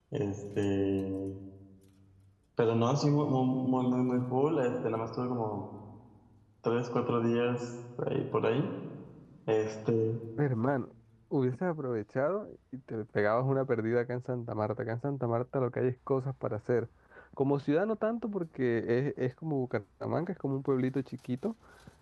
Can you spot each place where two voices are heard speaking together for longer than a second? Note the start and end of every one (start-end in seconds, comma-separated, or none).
none